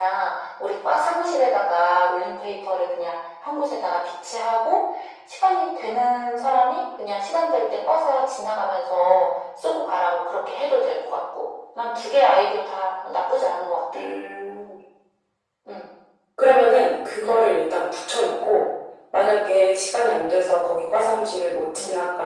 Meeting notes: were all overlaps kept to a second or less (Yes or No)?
Yes